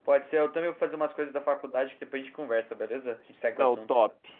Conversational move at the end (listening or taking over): taking over